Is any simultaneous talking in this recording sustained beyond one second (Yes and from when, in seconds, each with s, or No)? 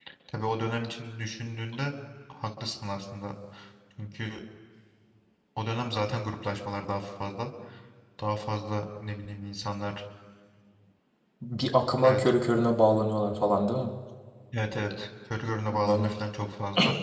No